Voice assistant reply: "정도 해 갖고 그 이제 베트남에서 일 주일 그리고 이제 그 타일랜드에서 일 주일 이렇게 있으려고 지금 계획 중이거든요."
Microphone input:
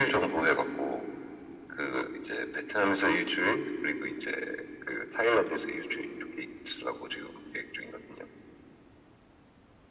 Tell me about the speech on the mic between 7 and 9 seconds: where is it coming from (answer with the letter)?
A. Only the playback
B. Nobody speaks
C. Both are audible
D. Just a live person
A